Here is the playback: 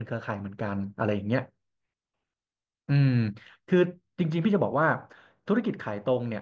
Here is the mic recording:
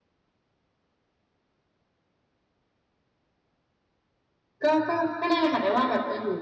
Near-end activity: present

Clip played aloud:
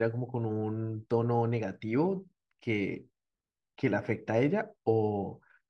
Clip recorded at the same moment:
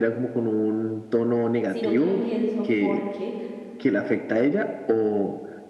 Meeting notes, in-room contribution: present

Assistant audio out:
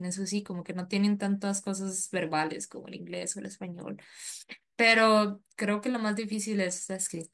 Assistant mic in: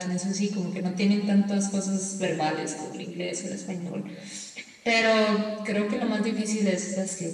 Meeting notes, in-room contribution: none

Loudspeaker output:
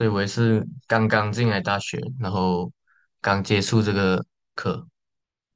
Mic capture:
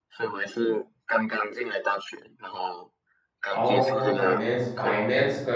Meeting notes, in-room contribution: present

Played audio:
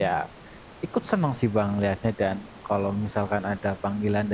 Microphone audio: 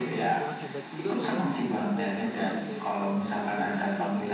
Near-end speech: present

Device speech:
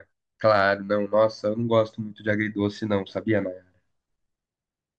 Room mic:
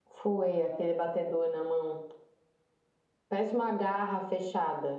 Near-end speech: present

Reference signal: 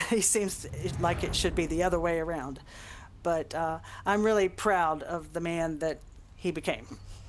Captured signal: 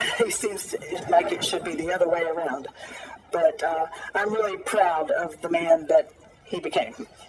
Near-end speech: none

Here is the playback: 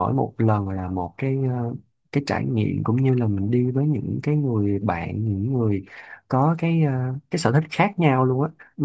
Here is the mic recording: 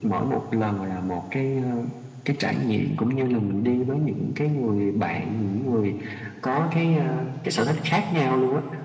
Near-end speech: none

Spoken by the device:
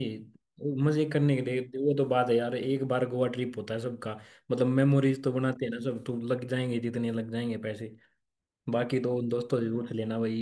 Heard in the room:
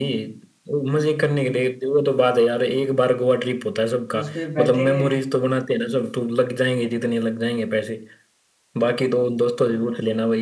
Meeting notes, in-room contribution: present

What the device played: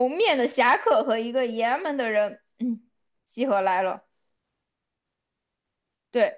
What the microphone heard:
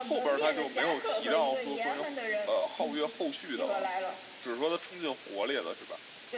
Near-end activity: present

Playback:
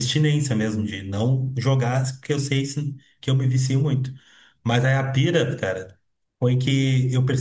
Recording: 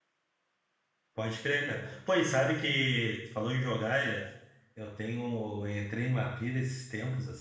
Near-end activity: present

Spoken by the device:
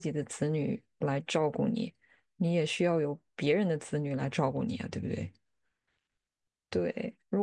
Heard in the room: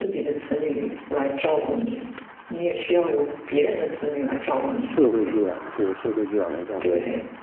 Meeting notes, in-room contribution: present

